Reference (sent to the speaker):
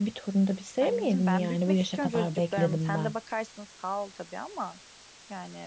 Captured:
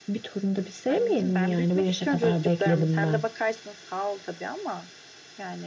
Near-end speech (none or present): none